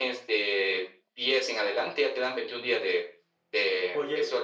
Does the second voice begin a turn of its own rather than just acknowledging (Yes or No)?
Yes